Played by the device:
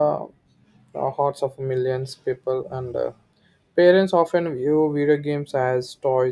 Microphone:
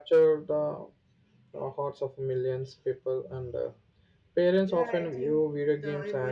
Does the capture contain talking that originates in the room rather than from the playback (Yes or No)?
Yes